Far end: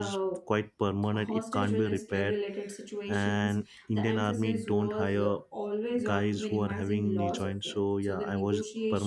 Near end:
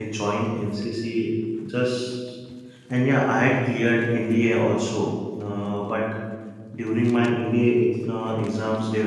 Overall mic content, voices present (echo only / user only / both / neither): user only